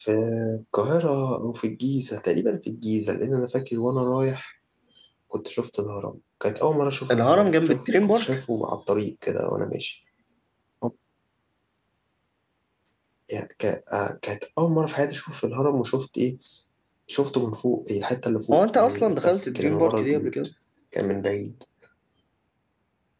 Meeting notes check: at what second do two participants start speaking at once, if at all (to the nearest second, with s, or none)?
7 s